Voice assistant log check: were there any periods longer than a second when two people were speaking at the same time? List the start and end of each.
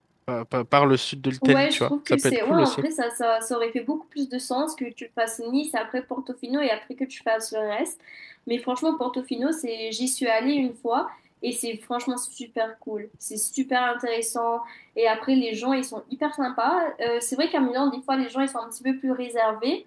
1.4-2.8

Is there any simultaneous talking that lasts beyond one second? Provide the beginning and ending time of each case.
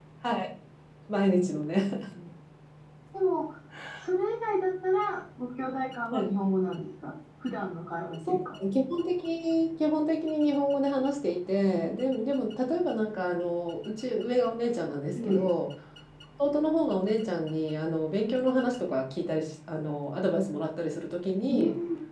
none

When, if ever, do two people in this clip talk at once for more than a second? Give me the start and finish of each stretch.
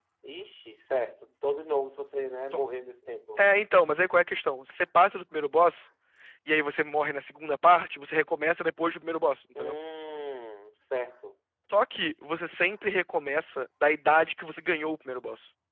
none

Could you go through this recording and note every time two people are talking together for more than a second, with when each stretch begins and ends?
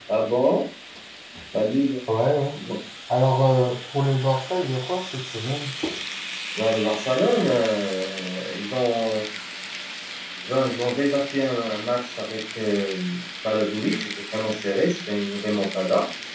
none

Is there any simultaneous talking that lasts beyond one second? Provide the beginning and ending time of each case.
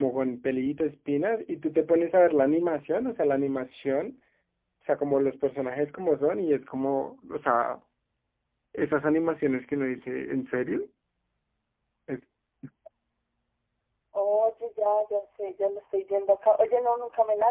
none

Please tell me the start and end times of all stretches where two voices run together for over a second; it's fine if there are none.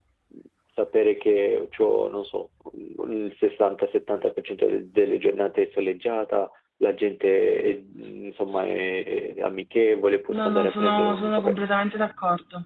10.3-11.6

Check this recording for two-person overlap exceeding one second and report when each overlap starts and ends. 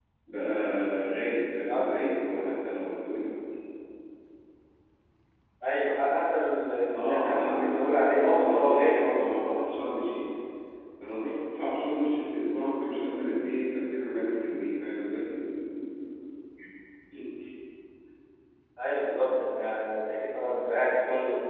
6.9-9.2

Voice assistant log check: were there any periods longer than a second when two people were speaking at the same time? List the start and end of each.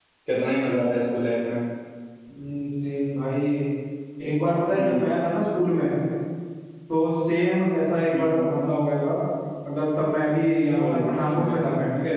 none

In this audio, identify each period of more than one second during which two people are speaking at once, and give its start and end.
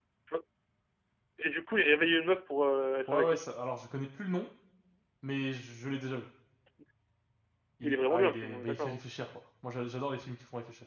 7.8-9.0

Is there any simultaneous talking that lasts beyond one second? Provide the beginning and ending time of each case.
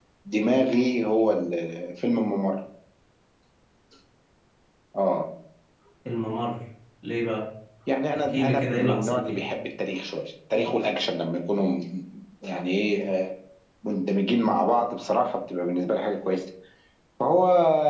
8.2-9.4

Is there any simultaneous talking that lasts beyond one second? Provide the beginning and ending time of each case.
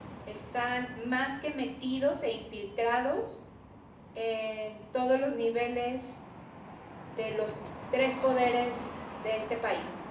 none

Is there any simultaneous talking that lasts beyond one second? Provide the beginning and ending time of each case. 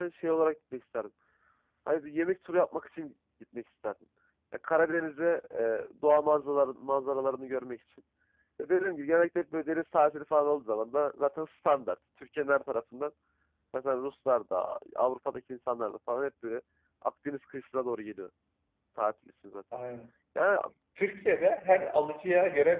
none

